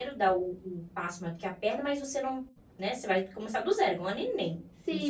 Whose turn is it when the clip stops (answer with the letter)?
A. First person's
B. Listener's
B